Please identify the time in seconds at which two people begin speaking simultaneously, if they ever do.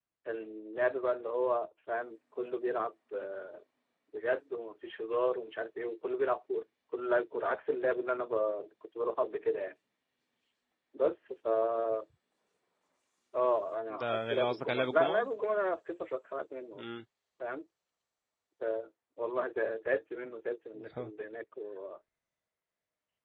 14.0 s

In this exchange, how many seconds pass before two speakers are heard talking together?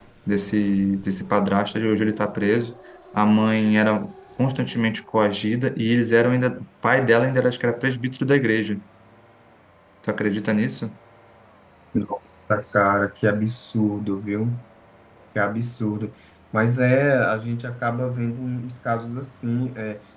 none

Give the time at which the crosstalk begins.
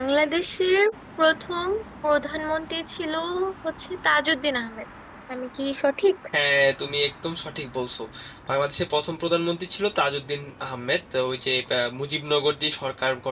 none

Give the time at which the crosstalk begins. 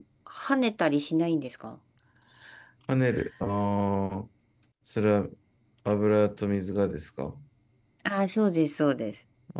none

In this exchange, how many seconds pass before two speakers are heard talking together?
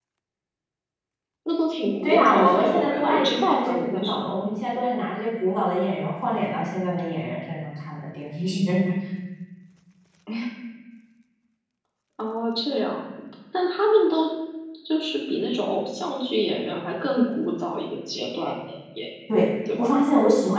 2.0 s

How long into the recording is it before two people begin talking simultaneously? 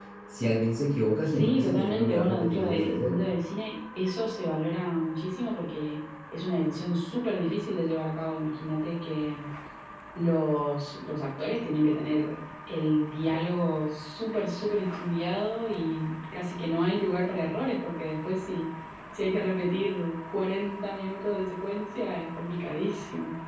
1.3 s

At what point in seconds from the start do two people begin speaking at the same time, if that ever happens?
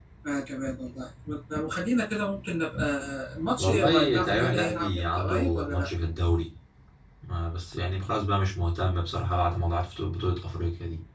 3.6 s

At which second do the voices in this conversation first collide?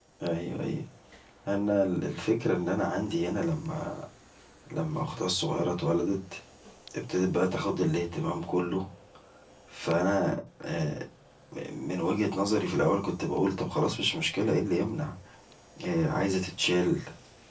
none

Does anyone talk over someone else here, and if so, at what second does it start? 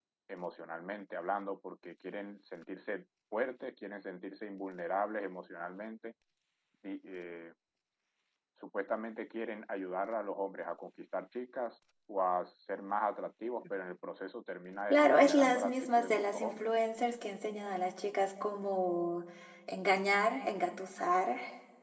14.9 s

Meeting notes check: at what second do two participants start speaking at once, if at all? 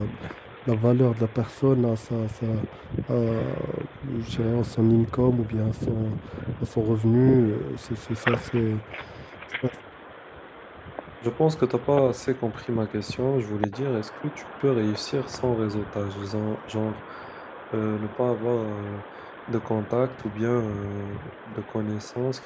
none

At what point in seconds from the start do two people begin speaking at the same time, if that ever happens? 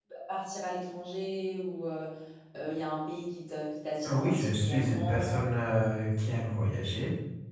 4.0 s

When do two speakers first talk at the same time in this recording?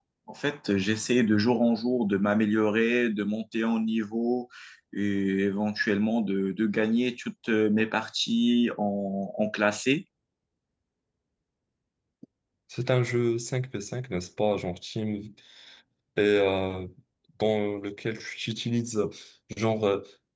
none

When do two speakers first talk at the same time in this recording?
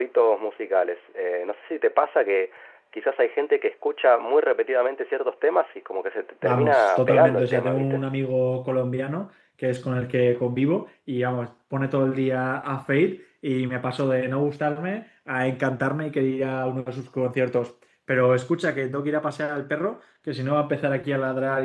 6.4 s

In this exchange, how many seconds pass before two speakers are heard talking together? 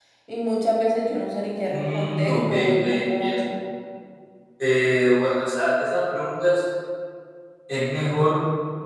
1.7 s

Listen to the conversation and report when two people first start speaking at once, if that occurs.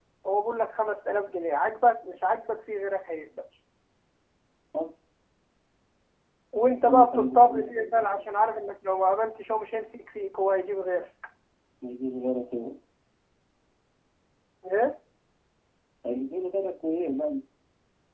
6.9 s

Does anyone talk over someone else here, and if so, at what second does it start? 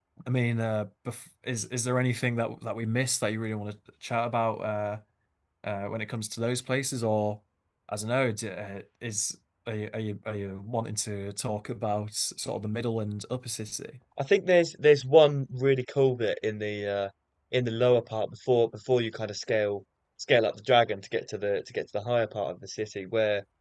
none

